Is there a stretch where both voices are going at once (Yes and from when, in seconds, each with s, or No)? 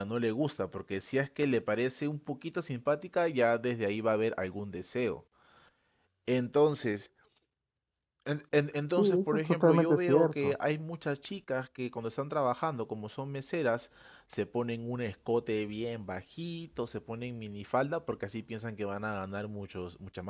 Yes, from 9.0 s